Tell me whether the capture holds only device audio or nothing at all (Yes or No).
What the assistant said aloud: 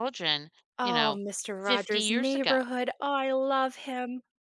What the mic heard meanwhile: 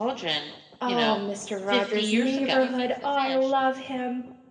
No